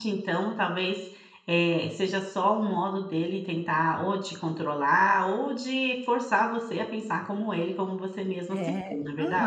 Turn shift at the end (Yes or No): Yes